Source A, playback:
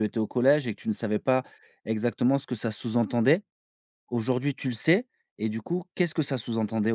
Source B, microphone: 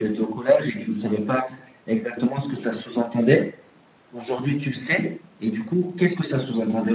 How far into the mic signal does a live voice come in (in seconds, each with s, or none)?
none